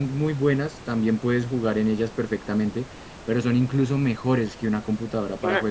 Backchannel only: Yes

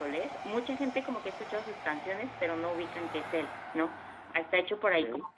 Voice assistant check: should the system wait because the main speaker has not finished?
Yes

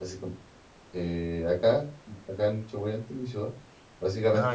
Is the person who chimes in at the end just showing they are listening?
Yes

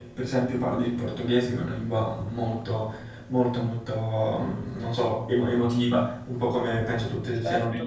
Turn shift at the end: Yes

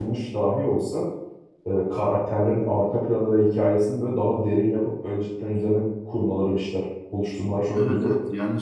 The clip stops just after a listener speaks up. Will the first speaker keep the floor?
No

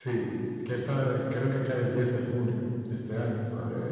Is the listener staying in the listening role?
Yes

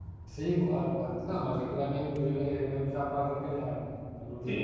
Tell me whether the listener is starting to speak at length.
Yes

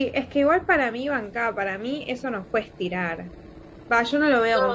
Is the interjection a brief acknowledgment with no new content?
Yes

